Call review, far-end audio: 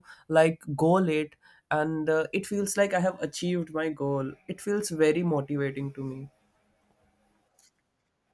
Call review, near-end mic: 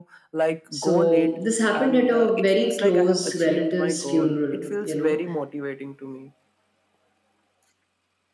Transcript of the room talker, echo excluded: So this happened at a very close relative's funeral, you know.

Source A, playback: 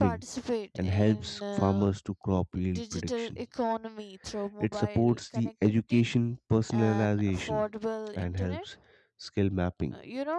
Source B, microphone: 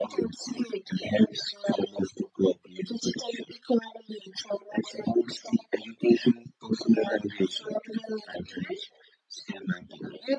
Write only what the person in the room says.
none

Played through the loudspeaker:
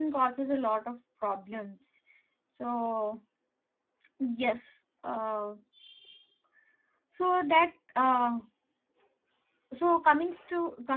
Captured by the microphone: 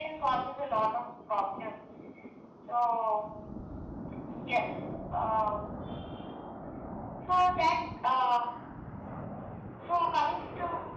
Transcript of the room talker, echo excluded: none

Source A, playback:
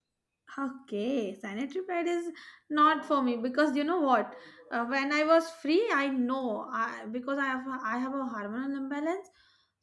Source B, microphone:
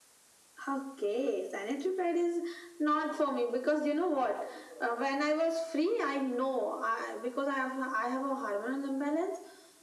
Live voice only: none

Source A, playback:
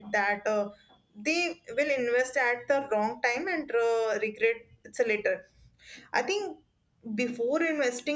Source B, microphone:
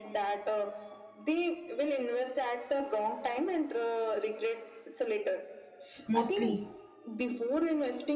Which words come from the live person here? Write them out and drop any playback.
mostly.

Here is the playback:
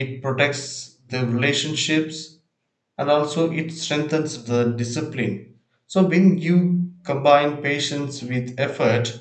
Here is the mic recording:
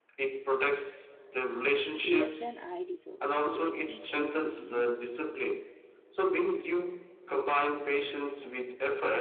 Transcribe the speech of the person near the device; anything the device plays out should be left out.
less than I deserve. So, it teaches me

